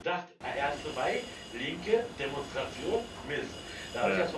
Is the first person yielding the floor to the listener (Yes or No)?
No